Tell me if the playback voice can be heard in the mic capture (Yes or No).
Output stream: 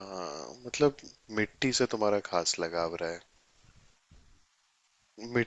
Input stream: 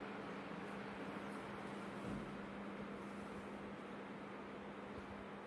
No